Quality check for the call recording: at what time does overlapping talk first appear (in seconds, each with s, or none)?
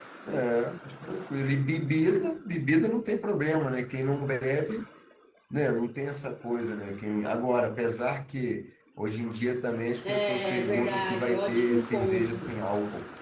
10.0 s